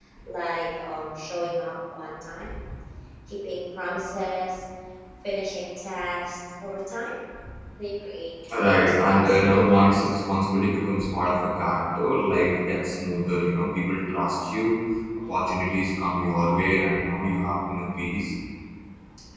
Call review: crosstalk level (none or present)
present